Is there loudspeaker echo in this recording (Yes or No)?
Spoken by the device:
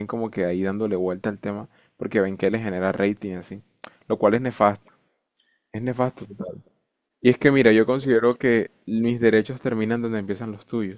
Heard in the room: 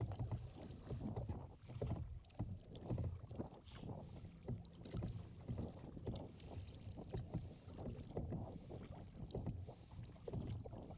No